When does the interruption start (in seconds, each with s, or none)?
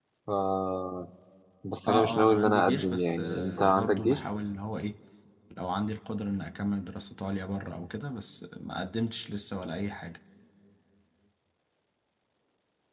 1.9 s